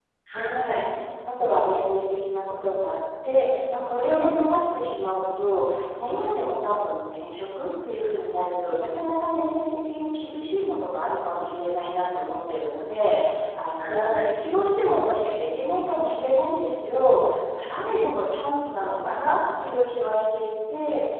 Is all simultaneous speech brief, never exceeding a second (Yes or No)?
Yes